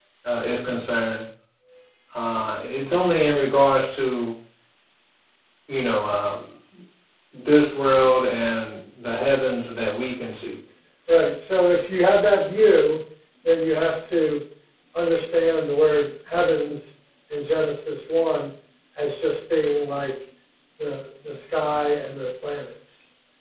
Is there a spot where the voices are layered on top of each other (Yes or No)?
No